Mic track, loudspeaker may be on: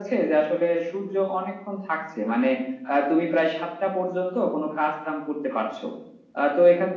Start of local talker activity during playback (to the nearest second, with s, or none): none